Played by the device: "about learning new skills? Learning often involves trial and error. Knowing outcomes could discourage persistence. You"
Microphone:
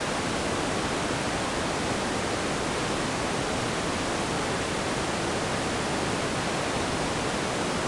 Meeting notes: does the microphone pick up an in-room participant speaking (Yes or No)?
No